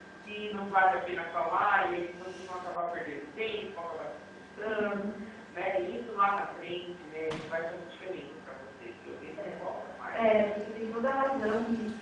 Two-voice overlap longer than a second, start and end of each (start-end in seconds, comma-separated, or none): none